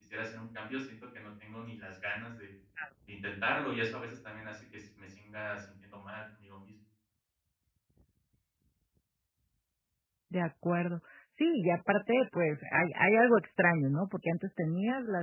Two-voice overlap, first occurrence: none

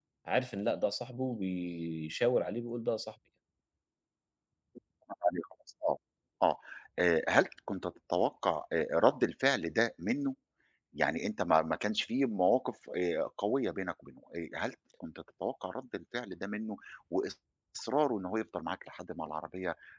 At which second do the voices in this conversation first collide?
none

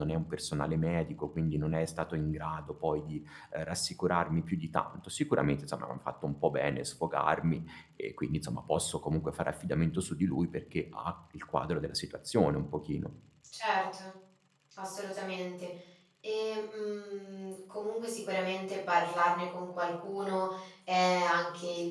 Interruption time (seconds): none

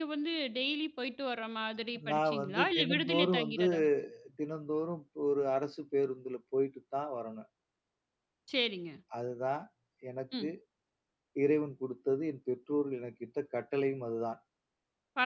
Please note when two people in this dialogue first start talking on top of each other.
2.0 s

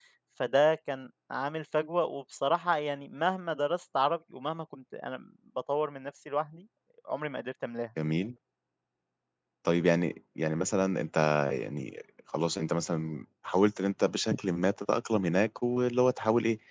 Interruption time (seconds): none

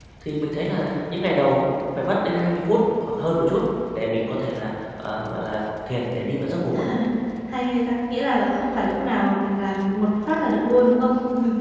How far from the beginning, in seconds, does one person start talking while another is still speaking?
none

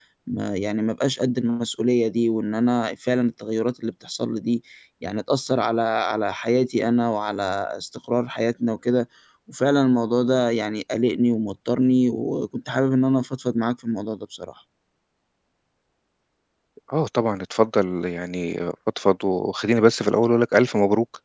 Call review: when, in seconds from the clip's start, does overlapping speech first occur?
none

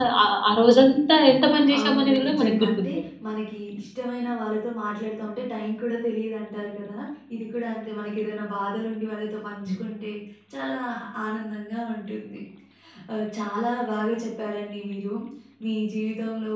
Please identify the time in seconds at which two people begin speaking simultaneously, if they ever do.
1.7 s

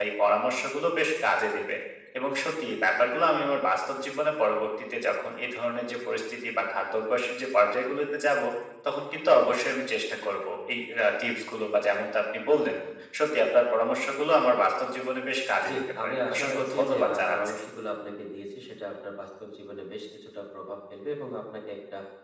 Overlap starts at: 15.6 s

